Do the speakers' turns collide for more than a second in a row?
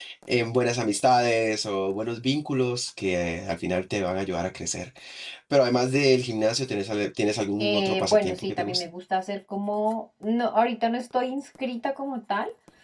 Yes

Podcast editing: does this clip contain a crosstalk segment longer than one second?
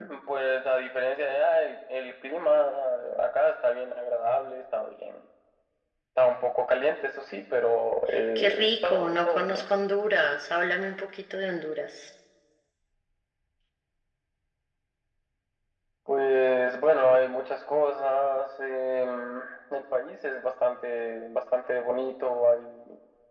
Yes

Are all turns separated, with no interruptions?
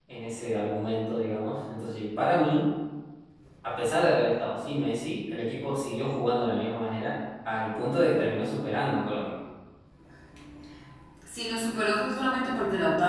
Yes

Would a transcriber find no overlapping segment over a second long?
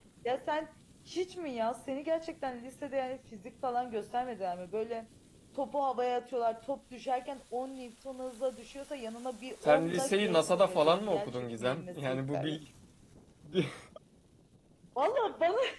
No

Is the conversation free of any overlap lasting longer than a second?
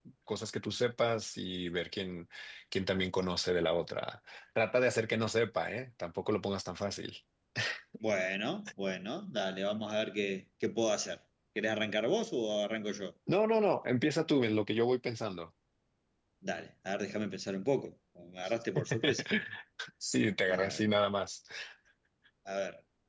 Yes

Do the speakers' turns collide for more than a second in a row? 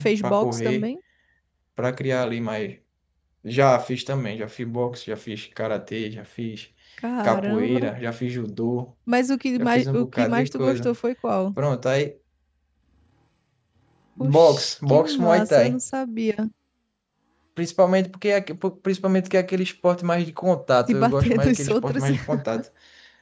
Yes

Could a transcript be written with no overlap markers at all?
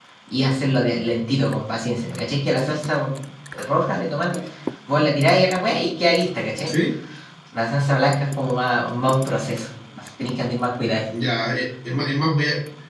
Yes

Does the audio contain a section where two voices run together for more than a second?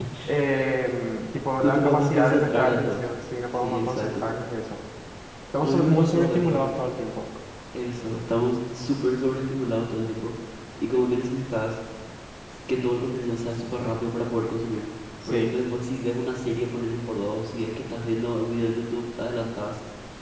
Yes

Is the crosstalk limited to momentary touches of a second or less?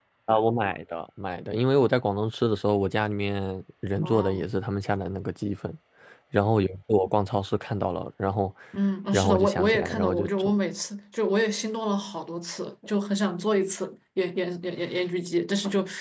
No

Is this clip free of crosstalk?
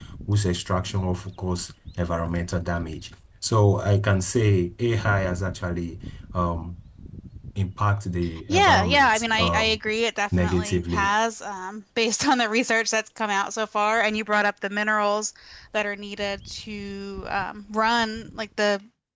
No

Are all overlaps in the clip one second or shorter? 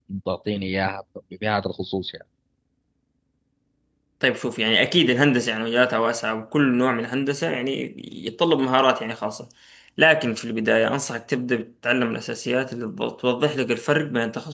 Yes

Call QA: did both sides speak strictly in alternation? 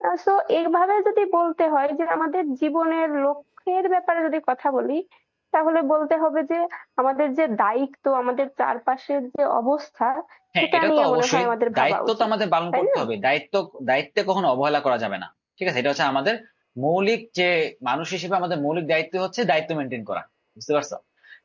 No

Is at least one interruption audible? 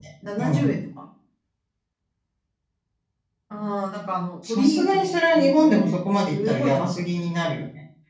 Yes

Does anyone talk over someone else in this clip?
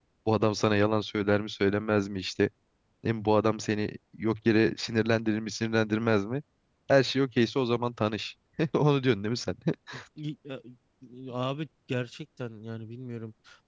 No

